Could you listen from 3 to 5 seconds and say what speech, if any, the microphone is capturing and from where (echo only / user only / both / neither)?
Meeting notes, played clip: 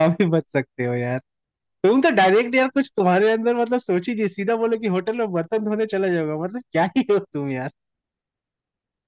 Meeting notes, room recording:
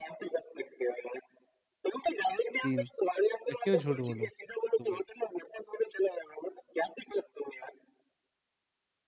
both